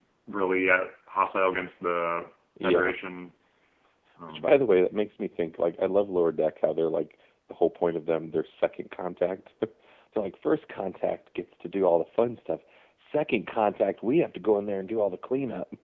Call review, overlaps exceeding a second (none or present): none